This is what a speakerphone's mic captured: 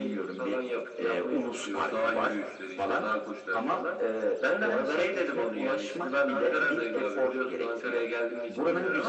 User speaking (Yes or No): No